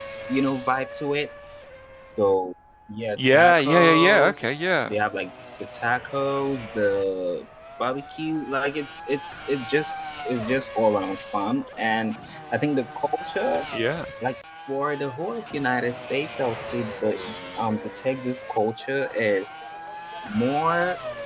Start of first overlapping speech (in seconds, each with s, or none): 3.2 s